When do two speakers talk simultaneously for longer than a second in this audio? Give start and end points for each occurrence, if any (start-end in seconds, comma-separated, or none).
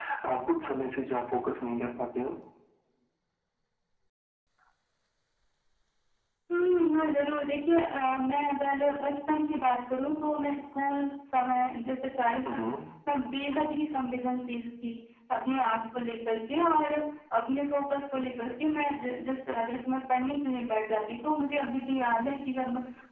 none